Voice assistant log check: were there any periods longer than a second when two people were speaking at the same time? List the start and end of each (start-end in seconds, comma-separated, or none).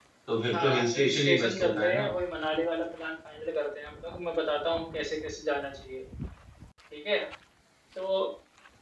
0.5-2.1